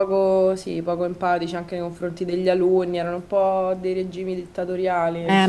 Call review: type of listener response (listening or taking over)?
taking over